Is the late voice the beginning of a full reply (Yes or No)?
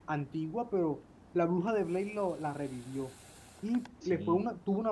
No